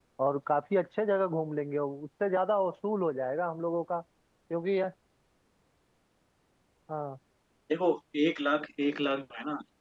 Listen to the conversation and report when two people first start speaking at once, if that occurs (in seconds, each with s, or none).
none